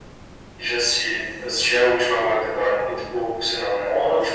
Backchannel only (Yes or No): No